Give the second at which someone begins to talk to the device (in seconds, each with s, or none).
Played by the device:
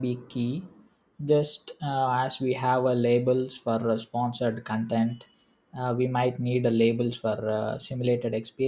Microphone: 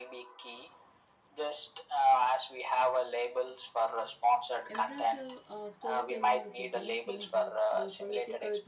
4.7 s